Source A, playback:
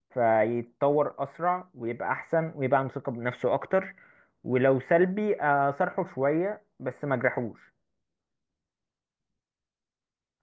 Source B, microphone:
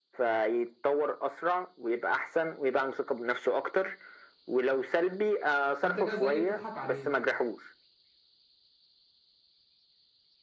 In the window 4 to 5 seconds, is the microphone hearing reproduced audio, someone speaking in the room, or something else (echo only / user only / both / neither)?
echo only